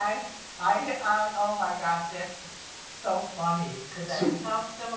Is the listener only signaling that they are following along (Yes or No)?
Yes